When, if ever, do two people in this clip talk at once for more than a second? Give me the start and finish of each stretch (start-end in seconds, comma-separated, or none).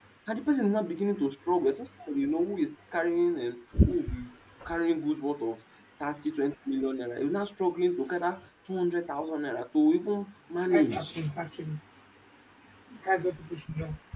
none